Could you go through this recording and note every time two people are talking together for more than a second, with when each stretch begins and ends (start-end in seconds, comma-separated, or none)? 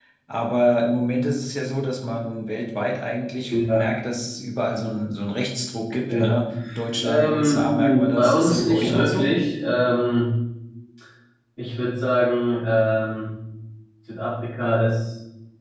7.0-9.3